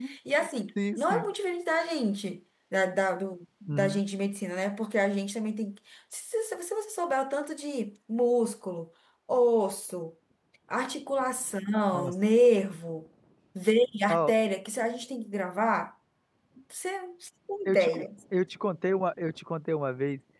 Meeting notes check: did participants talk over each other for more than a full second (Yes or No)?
No